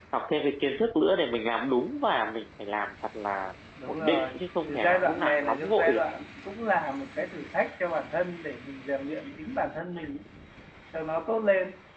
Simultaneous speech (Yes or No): Yes